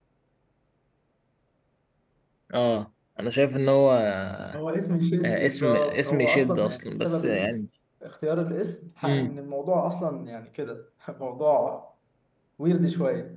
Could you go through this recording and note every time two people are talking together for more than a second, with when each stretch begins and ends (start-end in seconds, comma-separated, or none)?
5.4-7.6